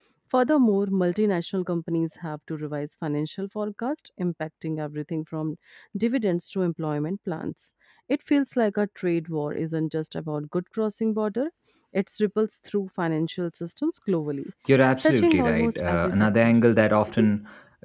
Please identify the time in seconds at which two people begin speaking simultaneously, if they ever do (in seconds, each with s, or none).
15.0 s